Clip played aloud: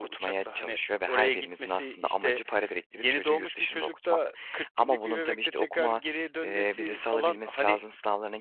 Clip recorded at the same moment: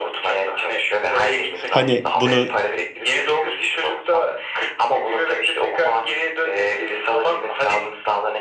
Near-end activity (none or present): present